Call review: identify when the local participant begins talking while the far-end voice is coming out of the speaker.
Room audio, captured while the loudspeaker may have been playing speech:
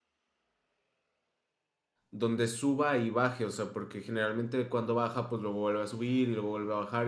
2 s

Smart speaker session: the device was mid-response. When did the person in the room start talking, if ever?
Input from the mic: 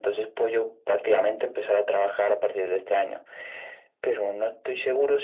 none

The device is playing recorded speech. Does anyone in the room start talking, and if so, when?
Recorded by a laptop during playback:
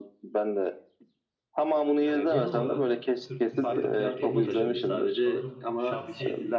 2 s

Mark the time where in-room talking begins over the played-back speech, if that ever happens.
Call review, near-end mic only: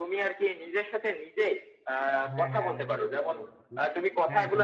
2 s

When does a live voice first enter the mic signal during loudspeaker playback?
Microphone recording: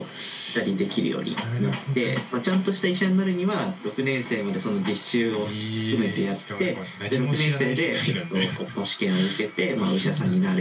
none

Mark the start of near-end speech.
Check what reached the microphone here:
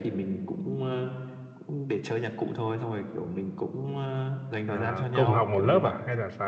5 s

